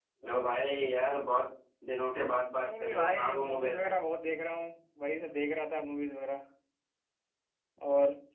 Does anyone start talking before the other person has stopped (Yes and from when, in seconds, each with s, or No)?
Yes, from 2.5 s